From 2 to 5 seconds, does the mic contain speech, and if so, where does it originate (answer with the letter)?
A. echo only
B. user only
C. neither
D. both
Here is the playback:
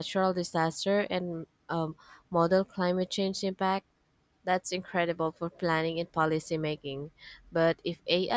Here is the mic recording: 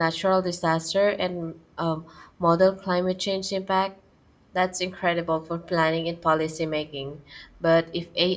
A